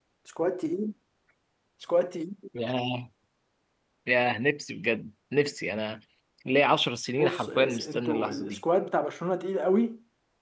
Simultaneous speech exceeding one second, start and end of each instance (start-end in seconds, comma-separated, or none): 7.2-8.6